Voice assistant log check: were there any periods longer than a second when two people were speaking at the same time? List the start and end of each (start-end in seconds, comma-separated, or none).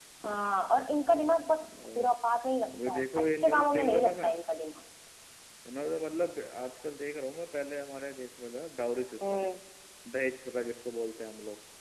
2.7-4.3